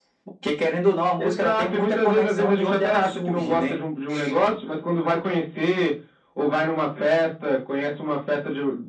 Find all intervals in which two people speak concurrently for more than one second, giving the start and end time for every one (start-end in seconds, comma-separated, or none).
1.2-3.8